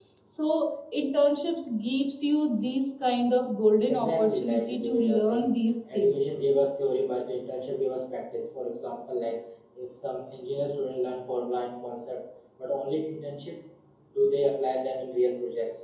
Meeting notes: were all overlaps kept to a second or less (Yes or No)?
No